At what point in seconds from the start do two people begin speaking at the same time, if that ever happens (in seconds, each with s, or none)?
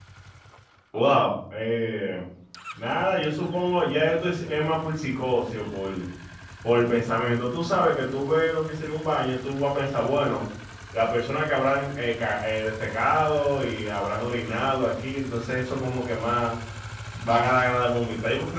none